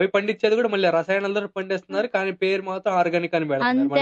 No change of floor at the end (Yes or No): No